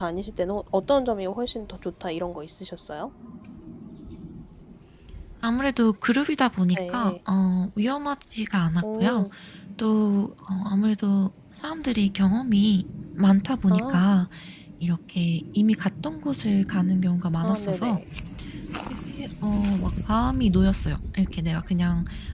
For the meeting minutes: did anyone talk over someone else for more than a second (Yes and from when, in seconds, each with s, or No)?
No